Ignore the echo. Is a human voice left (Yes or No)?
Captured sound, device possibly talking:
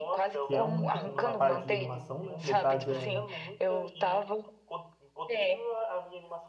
Yes